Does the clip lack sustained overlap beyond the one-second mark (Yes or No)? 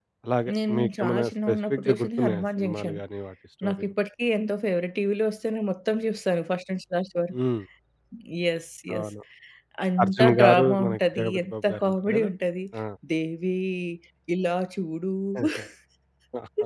No